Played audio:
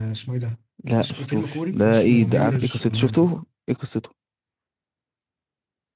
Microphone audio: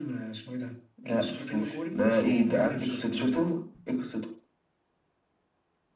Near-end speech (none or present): none